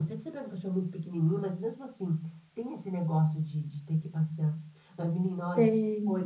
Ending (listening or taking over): listening